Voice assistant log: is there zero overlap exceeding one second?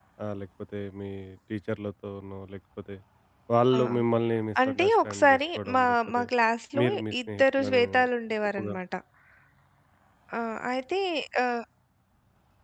No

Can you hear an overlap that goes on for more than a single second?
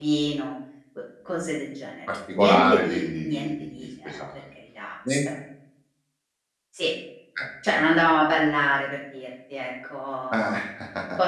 Yes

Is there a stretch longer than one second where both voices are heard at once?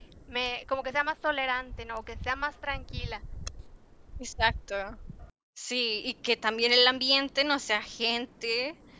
No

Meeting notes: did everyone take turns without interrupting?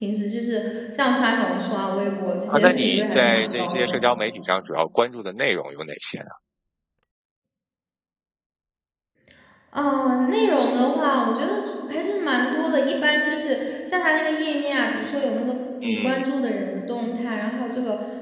No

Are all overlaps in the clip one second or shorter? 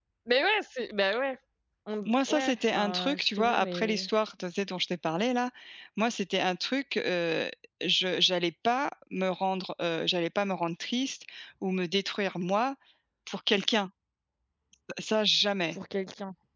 No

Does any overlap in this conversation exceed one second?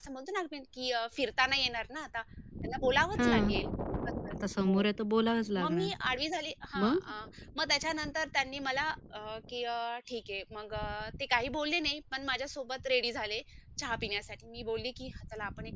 No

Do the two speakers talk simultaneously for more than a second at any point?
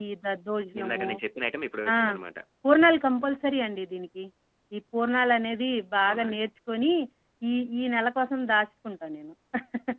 No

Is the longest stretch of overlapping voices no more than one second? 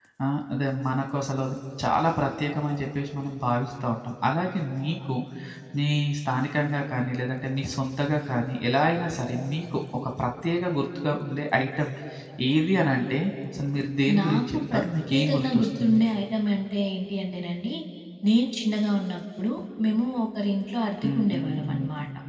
No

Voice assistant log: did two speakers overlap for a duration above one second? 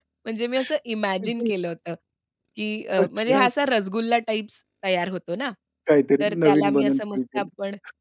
Yes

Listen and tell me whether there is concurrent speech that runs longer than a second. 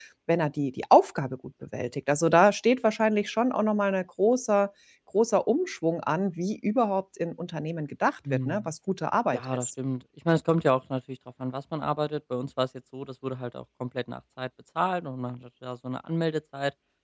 No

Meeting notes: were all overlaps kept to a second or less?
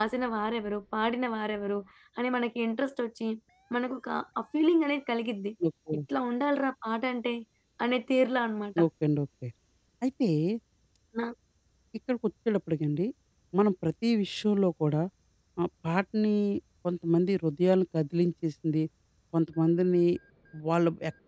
Yes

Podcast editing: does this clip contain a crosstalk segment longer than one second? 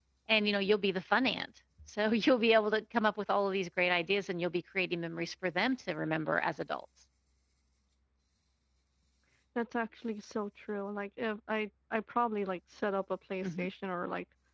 No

